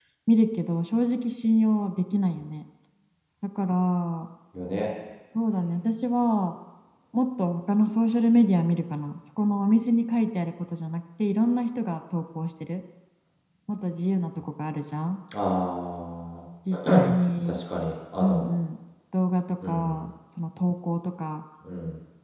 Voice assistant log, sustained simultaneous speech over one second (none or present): none